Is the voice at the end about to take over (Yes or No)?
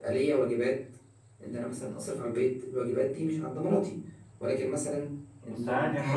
Yes